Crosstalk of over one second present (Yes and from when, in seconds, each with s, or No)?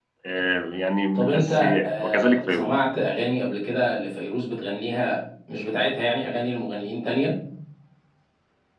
Yes, from 1.1 s